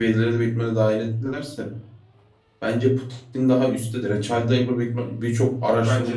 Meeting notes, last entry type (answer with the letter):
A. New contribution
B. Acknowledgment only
B